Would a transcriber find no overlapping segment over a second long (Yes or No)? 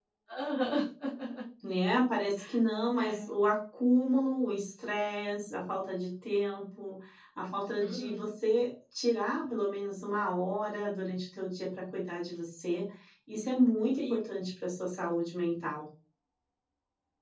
Yes